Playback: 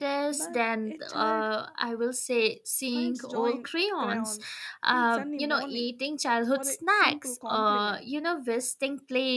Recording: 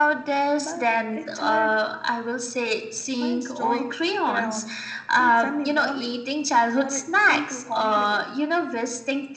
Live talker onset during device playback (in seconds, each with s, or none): none